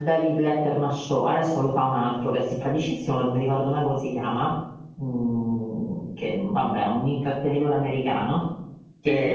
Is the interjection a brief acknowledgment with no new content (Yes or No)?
Yes